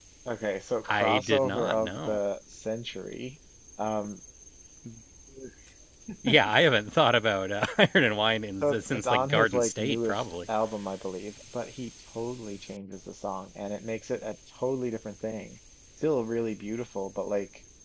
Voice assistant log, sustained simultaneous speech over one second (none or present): present